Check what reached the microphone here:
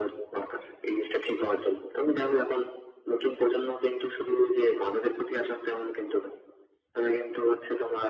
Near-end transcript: none

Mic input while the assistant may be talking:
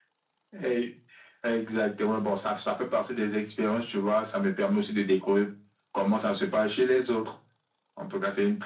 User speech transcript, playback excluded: none

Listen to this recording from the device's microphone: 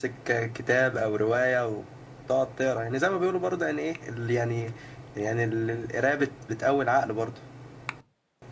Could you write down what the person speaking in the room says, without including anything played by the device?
none

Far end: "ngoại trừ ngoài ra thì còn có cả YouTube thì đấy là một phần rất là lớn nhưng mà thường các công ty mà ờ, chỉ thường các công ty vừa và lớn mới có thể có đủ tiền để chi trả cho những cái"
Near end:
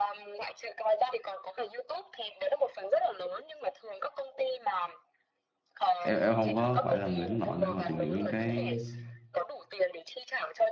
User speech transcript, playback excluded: em em không có phải là người hướng nội để mà tìm hiểu những cái

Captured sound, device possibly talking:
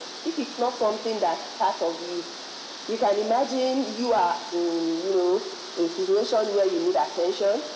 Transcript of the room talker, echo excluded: none

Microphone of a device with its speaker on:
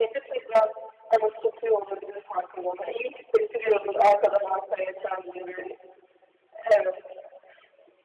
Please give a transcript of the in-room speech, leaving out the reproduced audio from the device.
none

